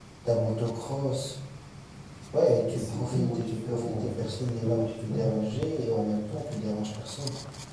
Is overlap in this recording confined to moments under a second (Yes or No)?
No